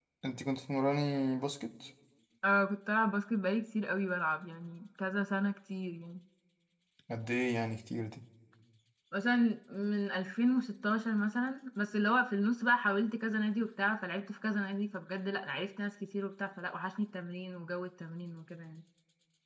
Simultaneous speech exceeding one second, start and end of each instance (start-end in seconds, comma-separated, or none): none